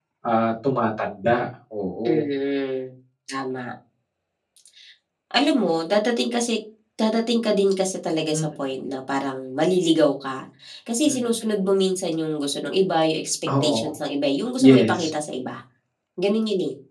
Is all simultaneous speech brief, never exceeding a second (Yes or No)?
Yes